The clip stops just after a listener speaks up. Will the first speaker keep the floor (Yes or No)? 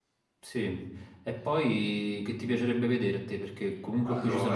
No